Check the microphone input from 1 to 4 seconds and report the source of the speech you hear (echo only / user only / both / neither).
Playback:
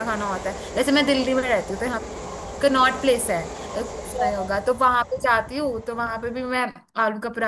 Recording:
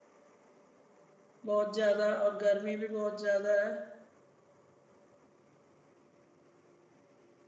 user only